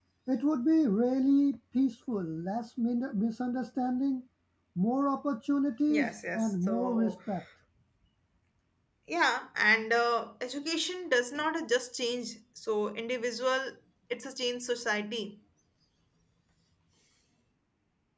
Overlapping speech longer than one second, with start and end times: 5.9-7.1

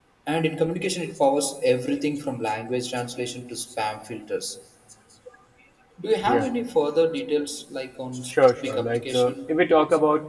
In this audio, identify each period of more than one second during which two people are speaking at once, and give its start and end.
8.3-9.6

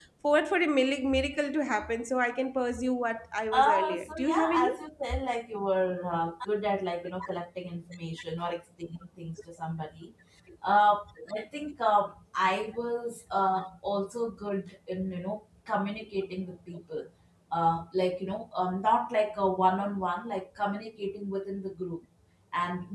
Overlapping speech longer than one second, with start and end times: 3.5-4.7

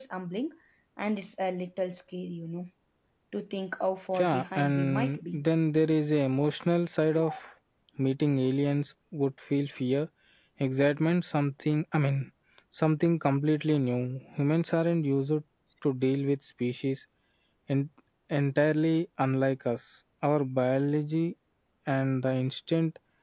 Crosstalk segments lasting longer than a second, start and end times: 4.2-5.4

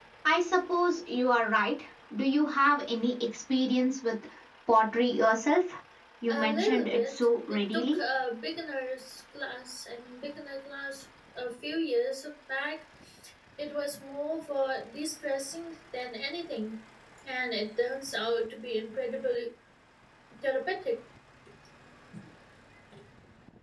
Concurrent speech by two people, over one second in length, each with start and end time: 6.3-8.0

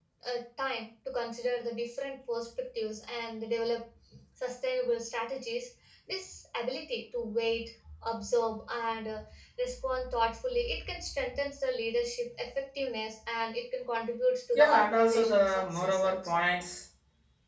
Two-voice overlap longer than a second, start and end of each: 14.6-16.4

